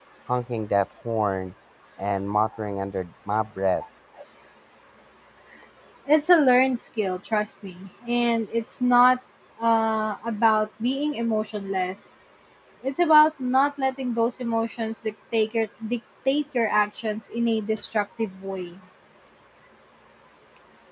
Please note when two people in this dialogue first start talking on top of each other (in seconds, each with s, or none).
none